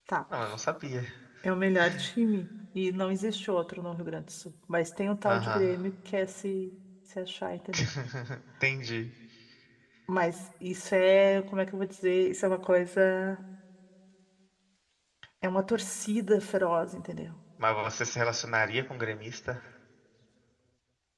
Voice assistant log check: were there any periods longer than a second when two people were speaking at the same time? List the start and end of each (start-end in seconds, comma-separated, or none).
none